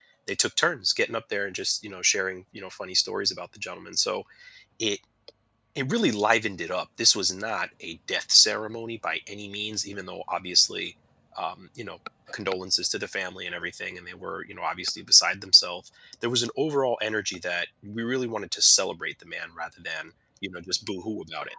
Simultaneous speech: No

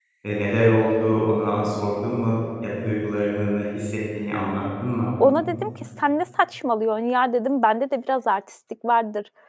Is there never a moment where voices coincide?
Yes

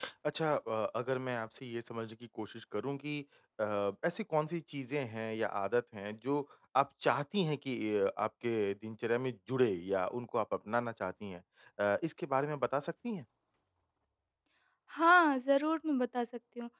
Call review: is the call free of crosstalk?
Yes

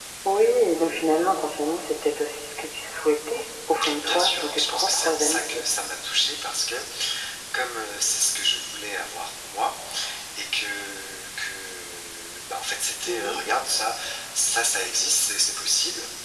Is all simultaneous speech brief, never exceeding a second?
No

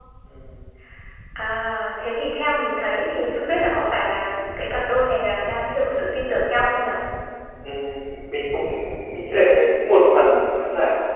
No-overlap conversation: Yes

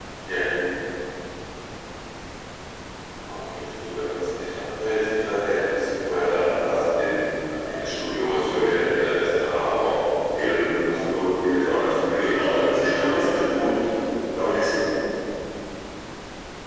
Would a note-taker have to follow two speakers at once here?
Yes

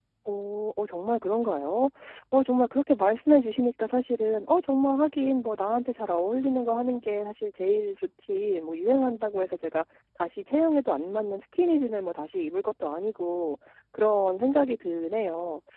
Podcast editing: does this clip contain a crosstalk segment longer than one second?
No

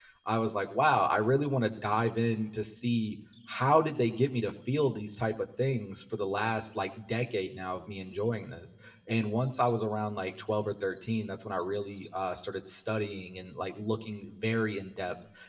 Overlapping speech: No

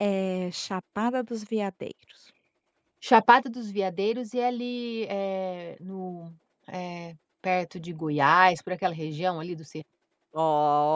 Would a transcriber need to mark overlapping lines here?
No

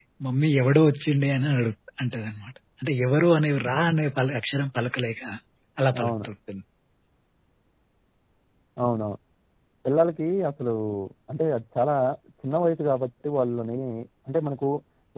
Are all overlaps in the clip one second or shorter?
Yes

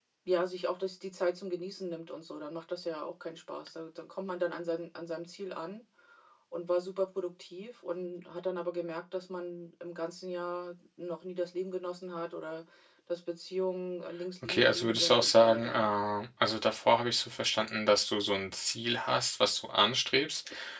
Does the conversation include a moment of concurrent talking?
Yes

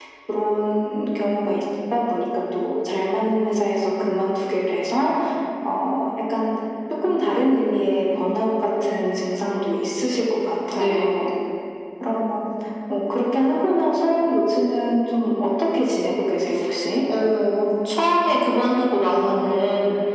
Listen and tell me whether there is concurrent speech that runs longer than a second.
No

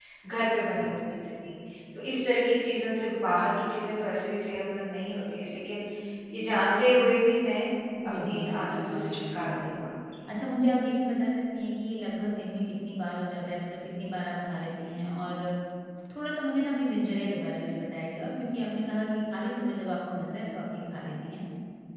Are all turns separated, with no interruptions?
No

